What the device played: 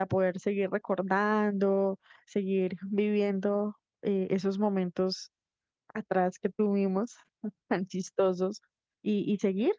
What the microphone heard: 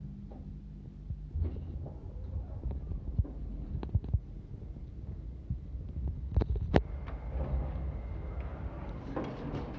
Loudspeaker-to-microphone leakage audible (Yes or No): No